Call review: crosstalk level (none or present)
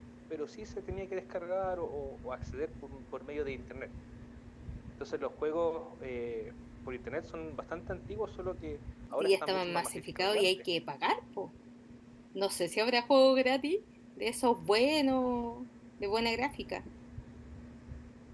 present